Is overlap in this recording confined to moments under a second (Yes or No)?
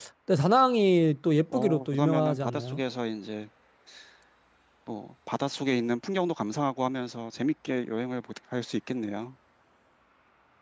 No